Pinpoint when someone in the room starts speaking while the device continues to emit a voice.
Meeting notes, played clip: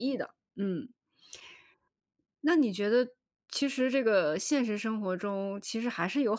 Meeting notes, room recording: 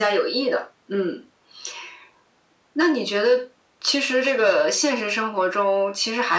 none

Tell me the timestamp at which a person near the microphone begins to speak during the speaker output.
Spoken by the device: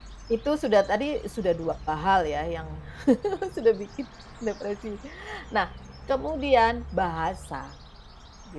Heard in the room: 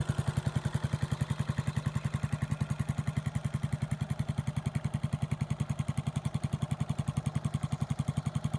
none

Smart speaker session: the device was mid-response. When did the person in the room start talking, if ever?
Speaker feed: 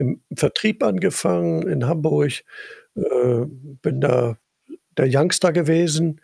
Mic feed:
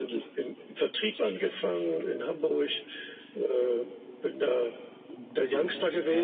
5.2 s

